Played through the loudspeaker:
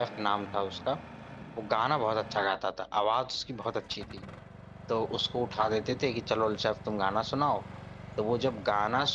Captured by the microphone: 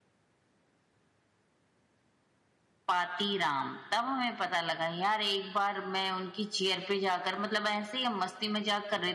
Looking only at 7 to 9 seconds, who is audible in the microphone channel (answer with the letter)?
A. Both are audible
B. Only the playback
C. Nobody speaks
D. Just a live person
D